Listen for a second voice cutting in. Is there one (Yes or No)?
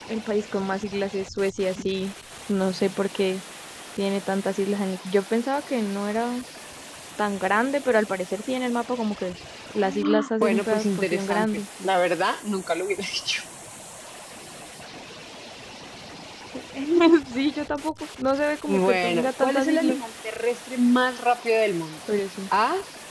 Yes